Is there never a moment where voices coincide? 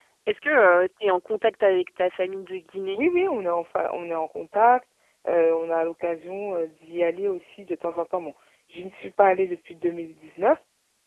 Yes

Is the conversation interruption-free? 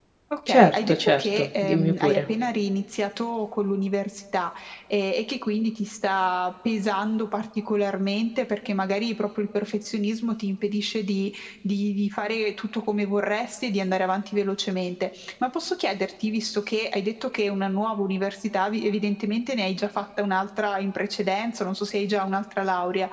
No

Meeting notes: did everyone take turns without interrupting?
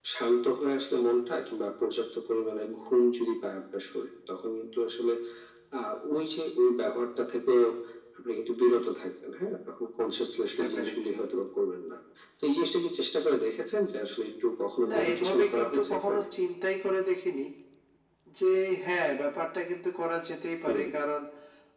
No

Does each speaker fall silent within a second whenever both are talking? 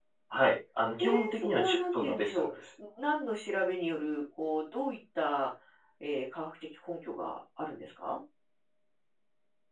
No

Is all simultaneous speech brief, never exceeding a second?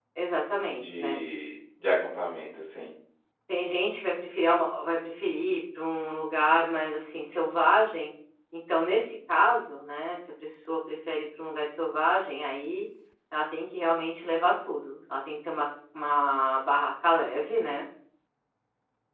Yes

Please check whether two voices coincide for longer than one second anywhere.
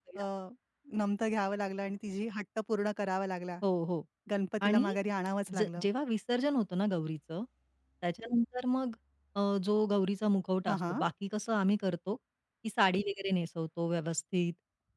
No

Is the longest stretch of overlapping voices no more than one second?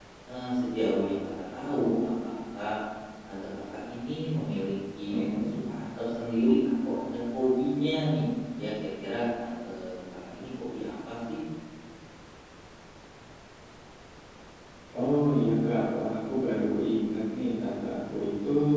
Yes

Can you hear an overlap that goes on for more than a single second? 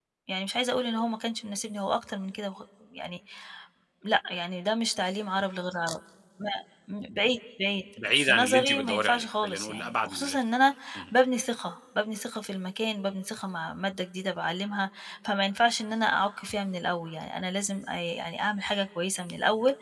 Yes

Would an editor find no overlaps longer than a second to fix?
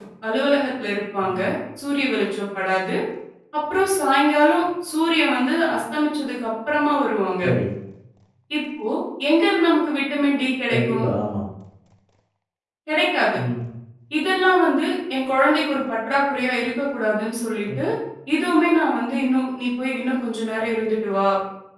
Yes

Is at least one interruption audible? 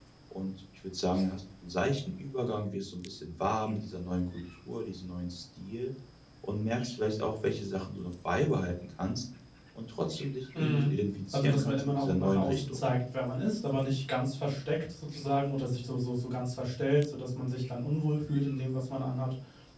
Yes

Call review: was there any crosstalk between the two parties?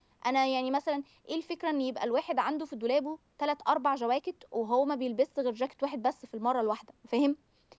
No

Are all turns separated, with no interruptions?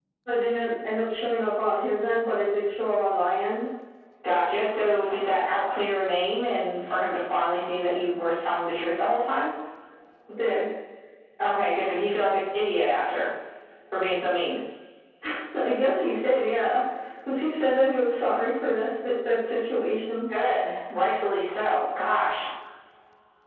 Yes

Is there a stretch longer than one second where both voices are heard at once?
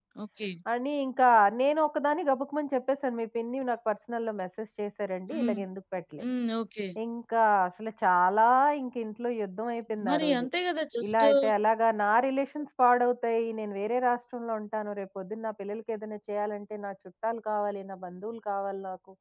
No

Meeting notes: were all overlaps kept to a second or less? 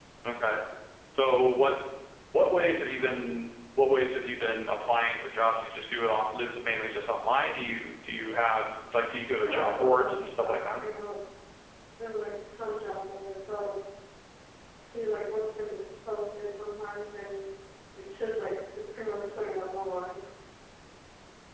No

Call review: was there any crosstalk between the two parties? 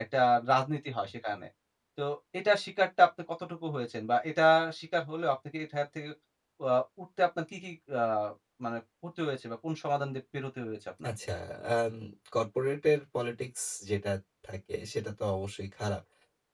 No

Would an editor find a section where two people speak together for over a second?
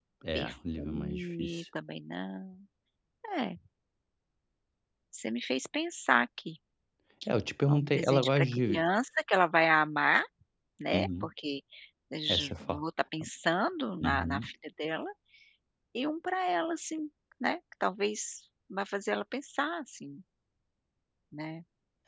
Yes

